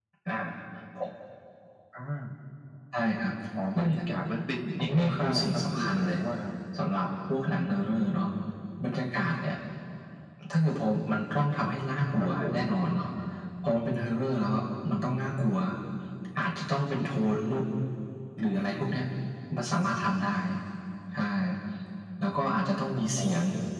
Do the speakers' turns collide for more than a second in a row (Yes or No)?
Yes